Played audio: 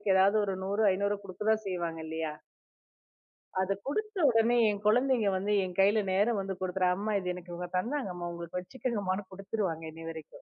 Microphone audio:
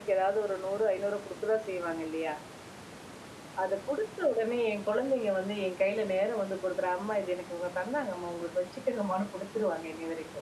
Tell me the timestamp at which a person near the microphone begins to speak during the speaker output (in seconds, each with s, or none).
none